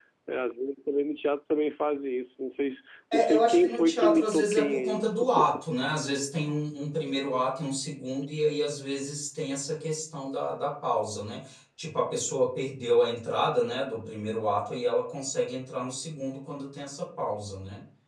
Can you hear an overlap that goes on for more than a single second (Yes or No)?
Yes